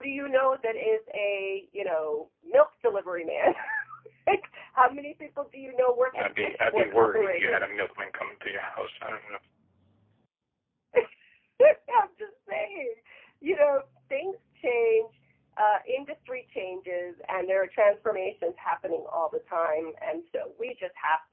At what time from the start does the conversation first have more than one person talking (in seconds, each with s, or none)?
6.1 s